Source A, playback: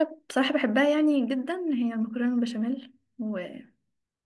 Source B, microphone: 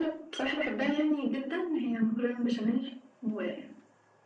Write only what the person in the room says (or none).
none